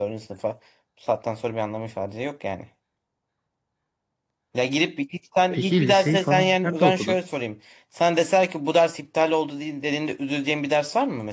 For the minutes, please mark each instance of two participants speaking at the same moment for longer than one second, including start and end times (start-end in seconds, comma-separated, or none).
5.5-7.2